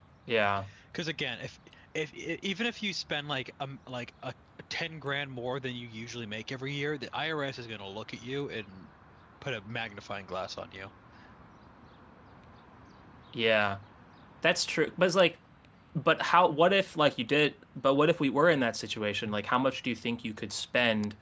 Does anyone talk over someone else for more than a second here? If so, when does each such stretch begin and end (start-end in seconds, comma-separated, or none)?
none